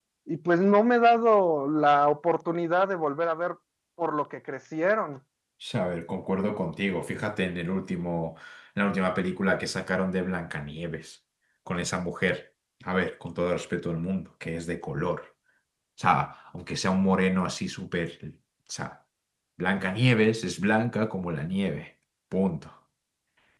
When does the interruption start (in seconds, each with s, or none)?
none